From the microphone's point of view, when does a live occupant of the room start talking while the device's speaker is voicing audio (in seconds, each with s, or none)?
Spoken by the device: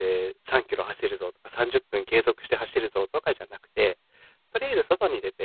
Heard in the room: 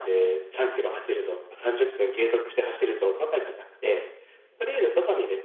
none